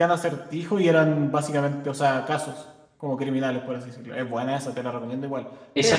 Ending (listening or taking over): taking over